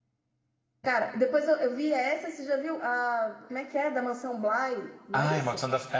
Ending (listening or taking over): taking over